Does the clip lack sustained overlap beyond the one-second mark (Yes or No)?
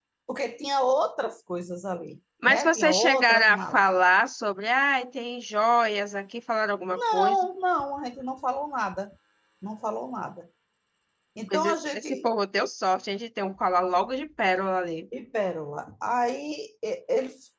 No